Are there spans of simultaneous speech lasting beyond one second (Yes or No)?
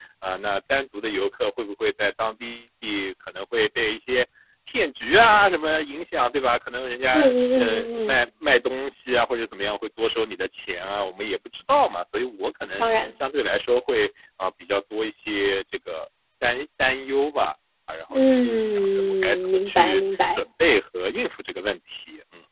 Yes